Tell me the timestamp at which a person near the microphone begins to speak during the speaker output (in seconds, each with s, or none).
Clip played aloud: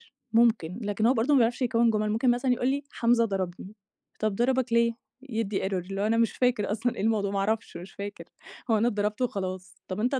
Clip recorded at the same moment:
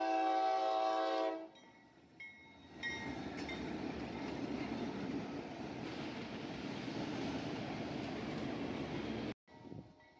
none